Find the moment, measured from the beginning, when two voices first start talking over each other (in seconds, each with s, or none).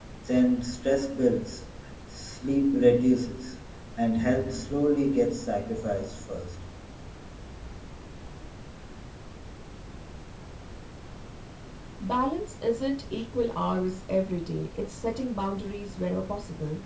none